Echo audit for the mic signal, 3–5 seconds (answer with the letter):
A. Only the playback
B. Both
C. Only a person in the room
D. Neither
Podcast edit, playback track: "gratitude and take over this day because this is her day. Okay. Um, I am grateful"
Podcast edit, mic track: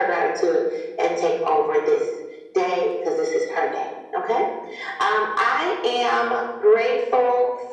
A